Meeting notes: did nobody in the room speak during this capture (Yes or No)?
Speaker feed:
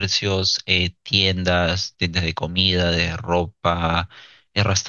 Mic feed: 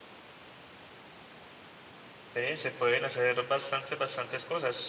No